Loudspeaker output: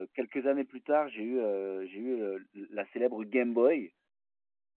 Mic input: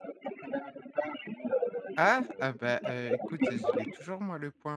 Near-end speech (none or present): present